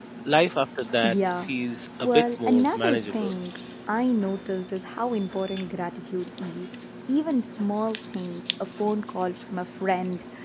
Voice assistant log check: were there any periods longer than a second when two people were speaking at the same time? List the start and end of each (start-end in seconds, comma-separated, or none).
2.0-3.3